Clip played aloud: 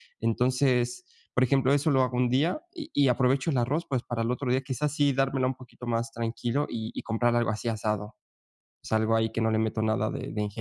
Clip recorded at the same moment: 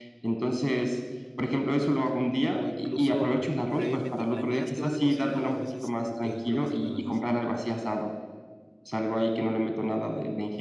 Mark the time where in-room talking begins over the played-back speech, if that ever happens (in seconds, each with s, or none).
2.5 s